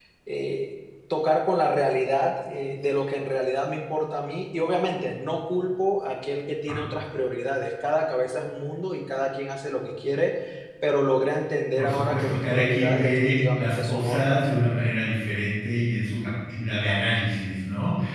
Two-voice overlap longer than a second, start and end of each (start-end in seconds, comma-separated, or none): 11.8-14.4